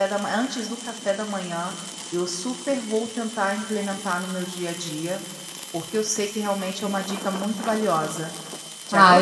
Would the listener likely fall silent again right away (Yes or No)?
No